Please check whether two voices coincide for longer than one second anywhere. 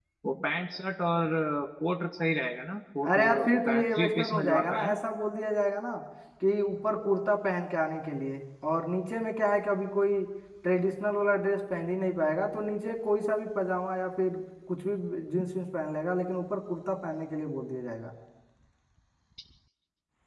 Yes, from 3.0 s

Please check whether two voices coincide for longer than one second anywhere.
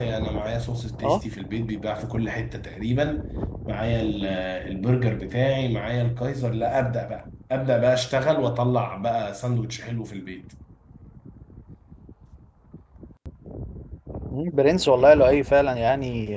No

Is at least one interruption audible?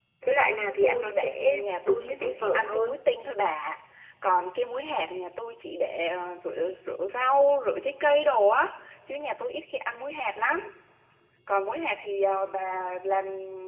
Yes, from 0.8 s

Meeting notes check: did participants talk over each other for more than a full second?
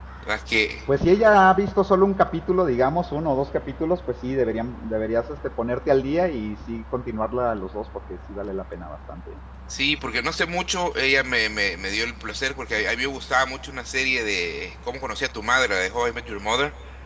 No

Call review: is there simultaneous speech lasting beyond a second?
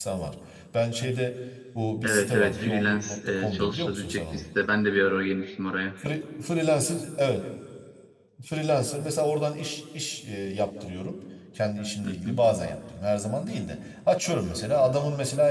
Yes, from 2.0 s

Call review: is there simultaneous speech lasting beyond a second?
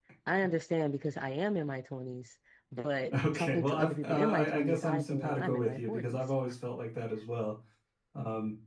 Yes, from 3.1 s

